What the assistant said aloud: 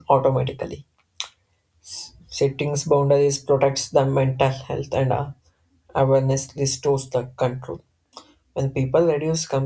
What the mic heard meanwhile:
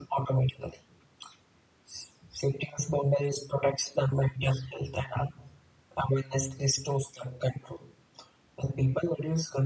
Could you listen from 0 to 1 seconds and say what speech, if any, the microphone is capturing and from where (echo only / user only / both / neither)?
echo only